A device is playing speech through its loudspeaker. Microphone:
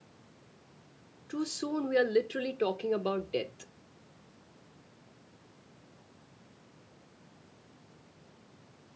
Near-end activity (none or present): present